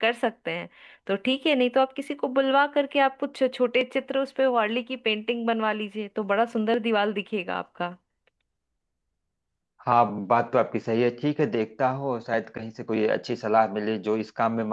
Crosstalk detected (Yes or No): No